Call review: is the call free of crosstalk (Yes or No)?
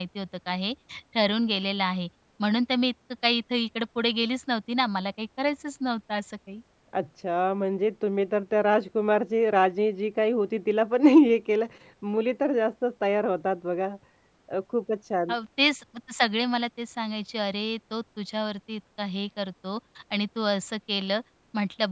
Yes